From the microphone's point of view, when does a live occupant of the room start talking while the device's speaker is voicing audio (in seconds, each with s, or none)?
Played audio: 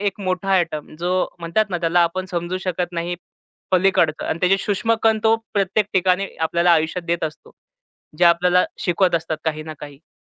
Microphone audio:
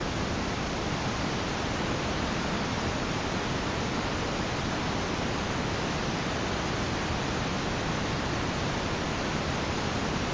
none